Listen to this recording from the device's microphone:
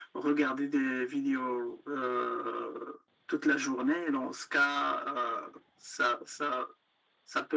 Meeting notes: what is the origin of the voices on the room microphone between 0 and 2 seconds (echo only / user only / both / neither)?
echo only